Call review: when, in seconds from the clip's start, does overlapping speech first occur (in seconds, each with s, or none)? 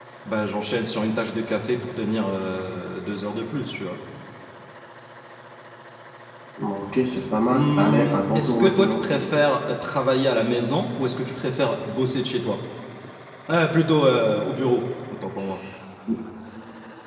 7.5 s